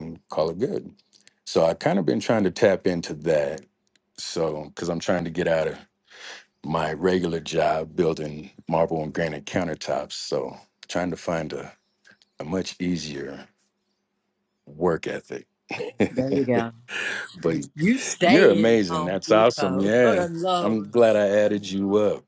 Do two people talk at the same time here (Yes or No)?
Yes